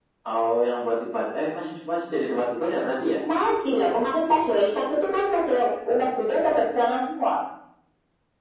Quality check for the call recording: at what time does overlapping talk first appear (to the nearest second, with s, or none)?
none